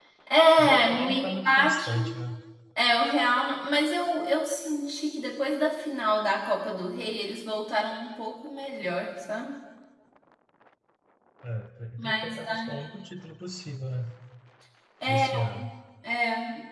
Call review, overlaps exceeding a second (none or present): present